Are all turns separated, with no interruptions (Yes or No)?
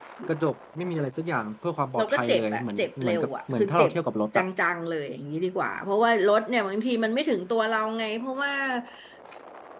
No